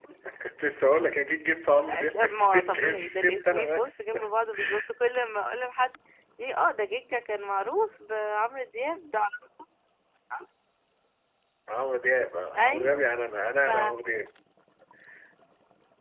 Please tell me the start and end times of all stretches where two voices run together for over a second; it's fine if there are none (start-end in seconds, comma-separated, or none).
1.9-4.0